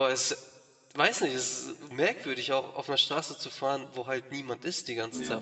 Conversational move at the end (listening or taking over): taking over